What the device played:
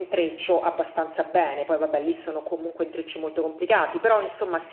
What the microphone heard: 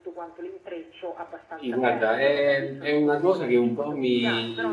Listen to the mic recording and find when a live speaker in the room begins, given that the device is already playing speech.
2 s

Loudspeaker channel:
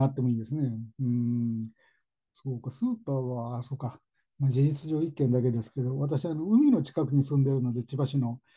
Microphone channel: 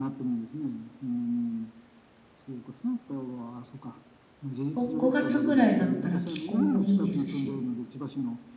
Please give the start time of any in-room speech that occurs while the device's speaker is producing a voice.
5 s

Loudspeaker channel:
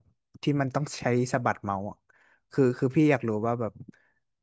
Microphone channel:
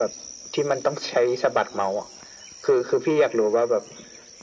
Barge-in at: none

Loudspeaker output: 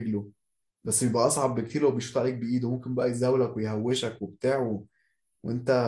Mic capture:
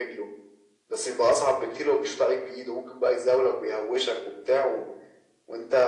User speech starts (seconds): none

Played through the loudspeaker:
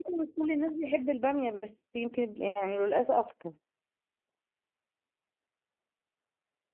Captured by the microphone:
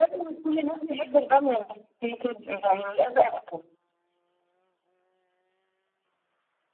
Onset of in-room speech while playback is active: none

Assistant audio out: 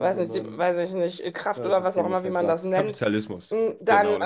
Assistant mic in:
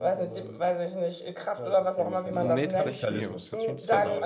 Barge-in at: 2 s

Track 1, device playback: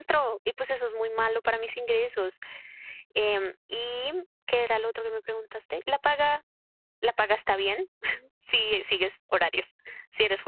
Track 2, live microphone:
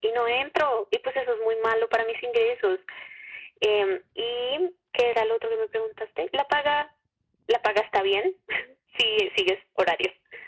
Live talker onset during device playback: none

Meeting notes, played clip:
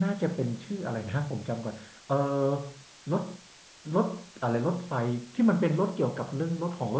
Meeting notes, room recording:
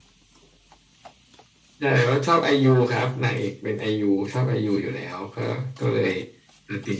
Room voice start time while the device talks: 2 s

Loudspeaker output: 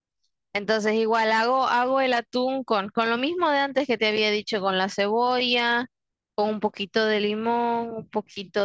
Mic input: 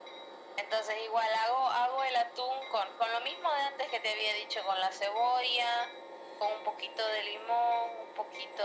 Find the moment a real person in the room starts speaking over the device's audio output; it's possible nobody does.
none

